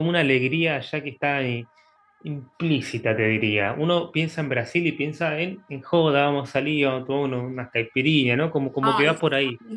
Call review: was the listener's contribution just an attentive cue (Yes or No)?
No